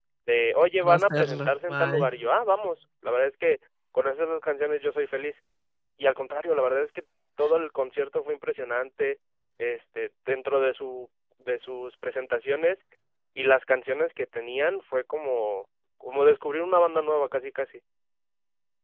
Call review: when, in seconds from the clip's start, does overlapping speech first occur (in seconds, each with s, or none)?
0.8 s